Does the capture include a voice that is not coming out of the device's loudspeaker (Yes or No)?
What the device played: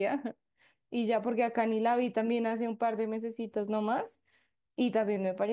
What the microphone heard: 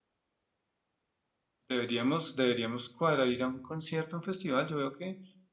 Yes